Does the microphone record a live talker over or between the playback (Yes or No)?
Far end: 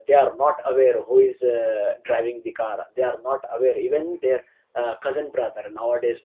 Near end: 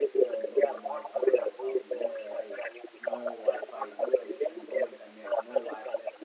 Yes